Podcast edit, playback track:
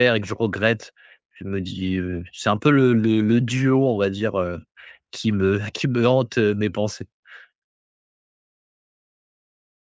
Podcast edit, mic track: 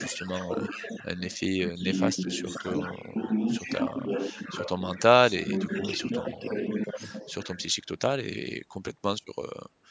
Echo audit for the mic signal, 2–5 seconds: both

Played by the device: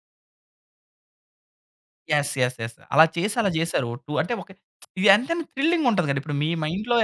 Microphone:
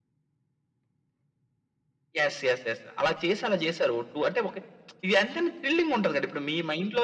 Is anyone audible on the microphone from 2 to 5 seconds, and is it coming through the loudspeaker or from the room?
echo only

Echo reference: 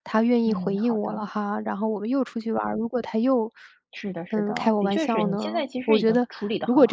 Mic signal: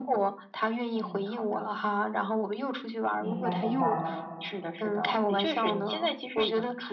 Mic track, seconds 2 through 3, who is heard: echo only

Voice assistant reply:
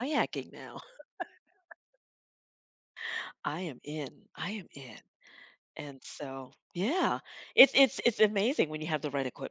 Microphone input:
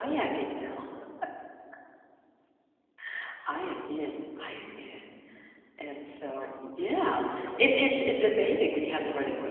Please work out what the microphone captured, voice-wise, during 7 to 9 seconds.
both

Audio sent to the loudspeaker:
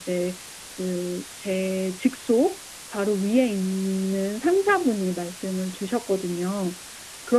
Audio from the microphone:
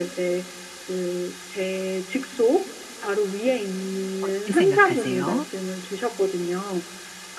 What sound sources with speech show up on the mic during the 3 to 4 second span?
echo only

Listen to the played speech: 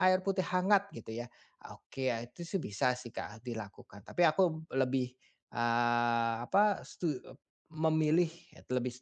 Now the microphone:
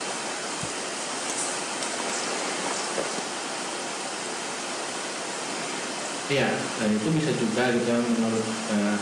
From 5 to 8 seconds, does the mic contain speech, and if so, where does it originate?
user only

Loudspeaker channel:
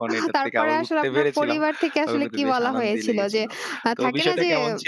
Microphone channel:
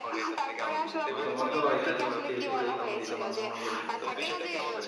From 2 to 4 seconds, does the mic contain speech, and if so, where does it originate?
both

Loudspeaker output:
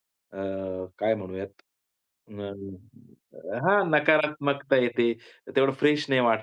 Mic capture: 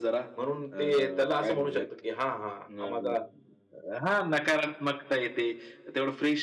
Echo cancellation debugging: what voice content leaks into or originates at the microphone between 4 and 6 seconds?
echo only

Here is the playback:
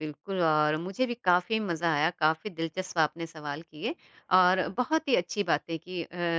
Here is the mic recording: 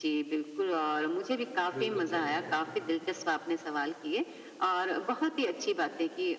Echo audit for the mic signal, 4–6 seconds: echo only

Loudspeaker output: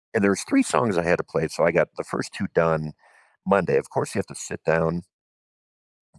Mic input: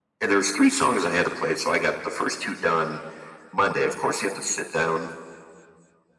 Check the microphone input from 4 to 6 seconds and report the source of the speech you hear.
echo only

